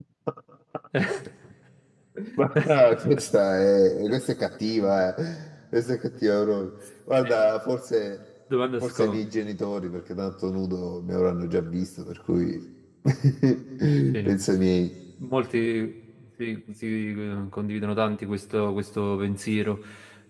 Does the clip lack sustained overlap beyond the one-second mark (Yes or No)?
Yes